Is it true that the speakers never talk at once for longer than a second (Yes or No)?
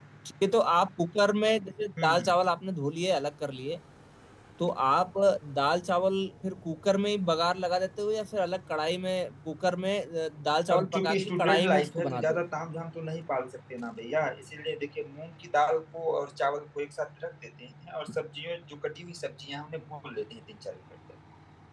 No